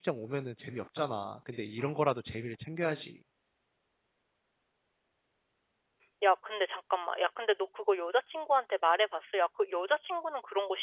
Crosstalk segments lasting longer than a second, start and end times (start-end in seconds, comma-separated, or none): none